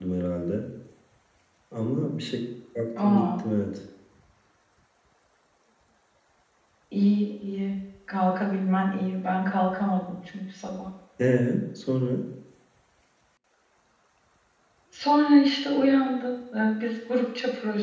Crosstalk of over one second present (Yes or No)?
No